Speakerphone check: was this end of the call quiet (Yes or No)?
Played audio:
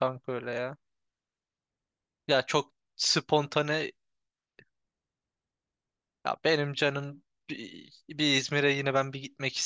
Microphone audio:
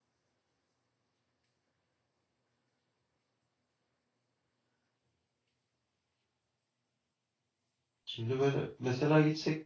No